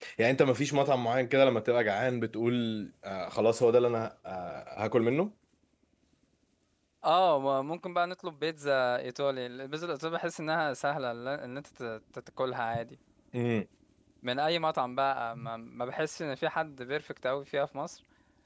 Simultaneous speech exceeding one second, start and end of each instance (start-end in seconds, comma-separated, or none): none